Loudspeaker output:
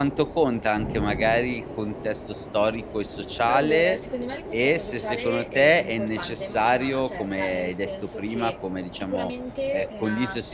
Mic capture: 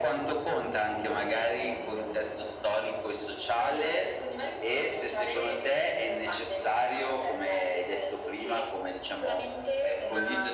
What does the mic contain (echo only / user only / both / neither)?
both